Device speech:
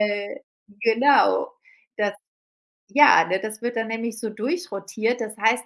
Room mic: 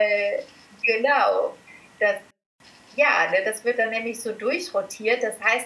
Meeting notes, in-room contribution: none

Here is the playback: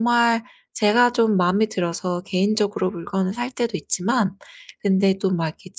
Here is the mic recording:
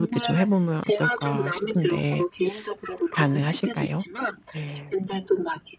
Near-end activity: present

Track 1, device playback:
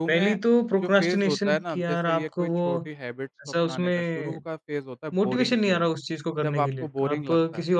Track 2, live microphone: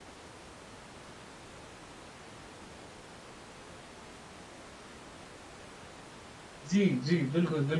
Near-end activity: present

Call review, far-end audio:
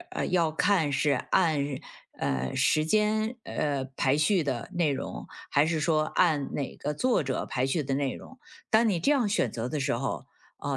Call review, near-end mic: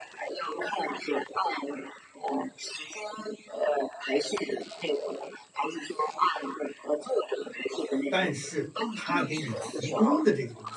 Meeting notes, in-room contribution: present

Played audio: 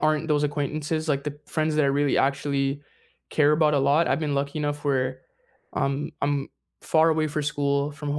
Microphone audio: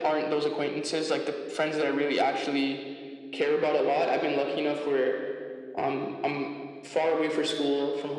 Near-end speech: none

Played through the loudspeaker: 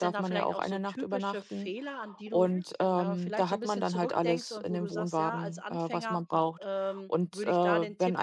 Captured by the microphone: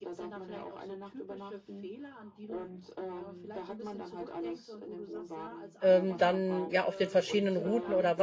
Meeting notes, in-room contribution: present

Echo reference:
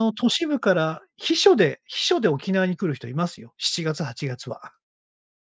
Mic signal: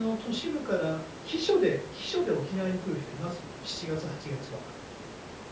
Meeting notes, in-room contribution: none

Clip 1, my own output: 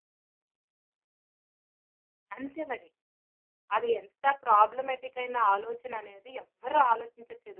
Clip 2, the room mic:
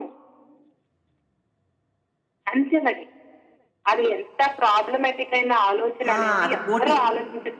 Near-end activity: present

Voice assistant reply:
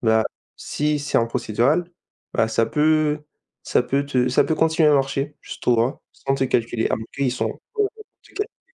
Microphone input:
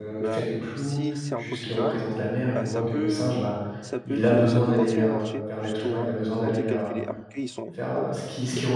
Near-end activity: present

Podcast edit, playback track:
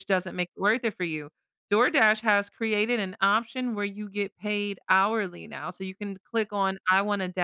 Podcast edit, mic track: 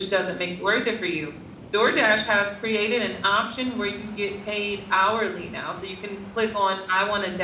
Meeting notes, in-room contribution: none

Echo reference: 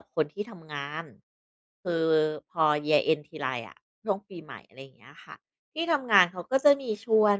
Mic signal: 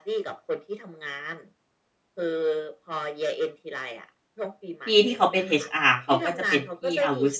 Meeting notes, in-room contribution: present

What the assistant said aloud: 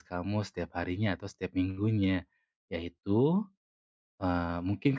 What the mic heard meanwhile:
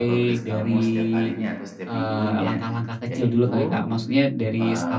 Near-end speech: present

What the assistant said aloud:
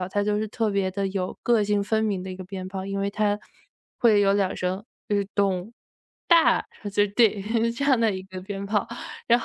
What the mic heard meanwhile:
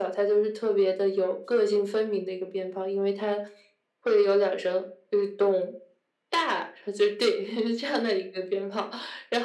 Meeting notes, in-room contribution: none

